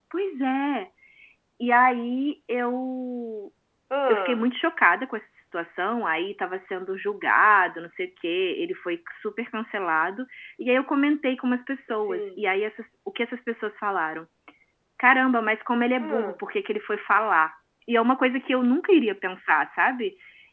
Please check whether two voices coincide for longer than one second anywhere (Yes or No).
No